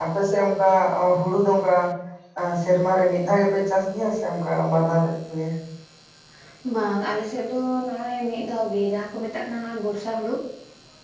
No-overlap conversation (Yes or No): Yes